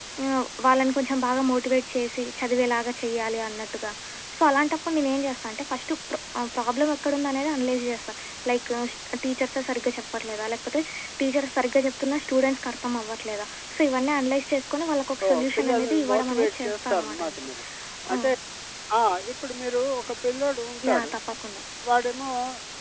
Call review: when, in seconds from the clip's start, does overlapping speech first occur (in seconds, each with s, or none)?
15.2 s